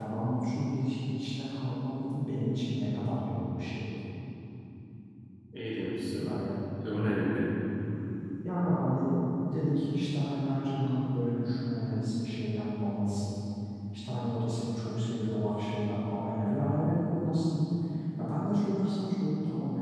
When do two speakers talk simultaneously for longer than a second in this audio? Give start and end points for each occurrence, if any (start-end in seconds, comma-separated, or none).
none